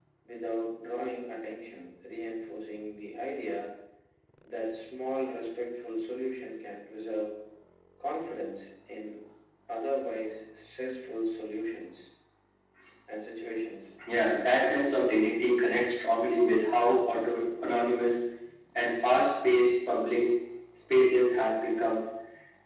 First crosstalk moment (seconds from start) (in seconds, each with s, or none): none